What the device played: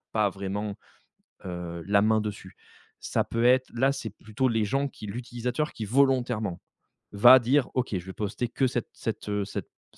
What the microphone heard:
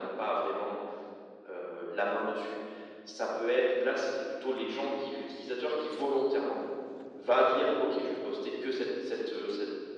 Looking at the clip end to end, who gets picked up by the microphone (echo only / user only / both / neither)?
echo only